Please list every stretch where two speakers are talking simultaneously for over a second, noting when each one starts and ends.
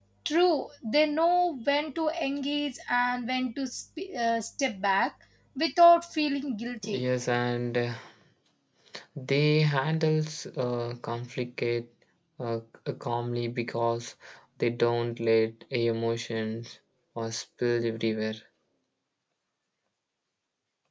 none

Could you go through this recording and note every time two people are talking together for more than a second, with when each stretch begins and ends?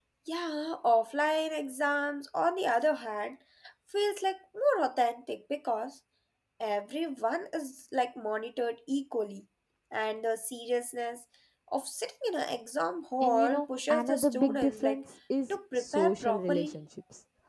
13.2-15.0, 15.5-16.7

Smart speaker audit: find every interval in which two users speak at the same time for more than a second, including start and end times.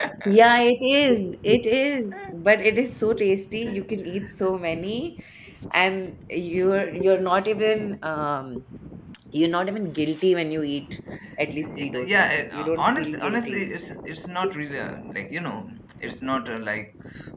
12.0-13.6

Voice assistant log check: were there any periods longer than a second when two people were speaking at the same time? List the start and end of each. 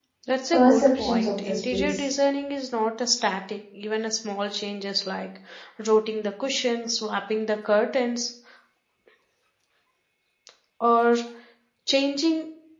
0.5-2.0

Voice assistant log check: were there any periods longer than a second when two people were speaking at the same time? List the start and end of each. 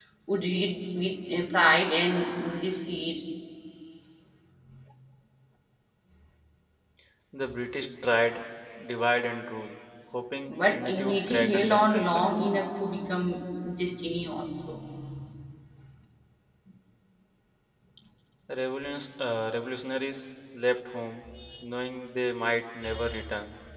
10.5-12.2

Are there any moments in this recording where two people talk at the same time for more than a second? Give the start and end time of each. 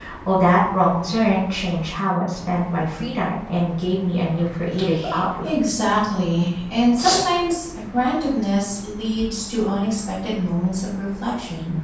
none

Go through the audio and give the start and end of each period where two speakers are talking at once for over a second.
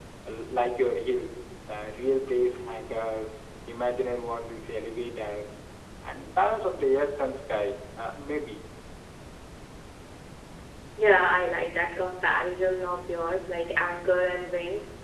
none

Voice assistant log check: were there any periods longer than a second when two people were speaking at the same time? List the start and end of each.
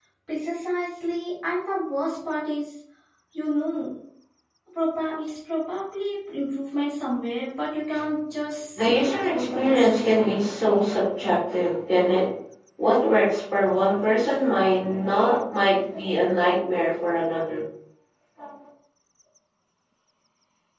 8.8-10.4

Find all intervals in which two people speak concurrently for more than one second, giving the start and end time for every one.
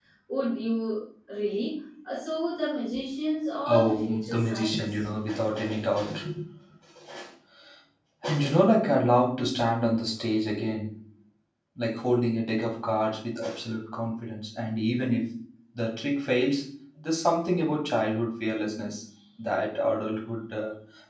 3.6-5.1

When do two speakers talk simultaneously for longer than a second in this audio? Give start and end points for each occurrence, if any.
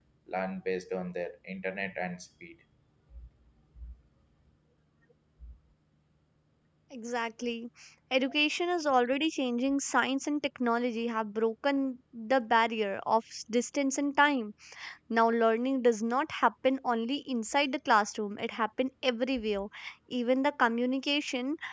none

